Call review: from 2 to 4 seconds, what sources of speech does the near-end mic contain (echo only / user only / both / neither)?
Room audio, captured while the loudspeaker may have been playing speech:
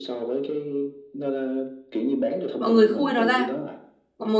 both